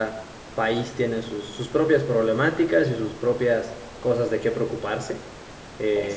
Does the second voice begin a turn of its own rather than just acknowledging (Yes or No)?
No